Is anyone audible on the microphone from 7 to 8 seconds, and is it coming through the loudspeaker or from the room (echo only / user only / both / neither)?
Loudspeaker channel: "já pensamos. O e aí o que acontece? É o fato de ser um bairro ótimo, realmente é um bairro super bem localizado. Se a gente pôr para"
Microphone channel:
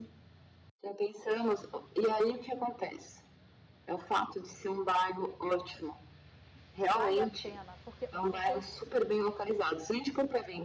both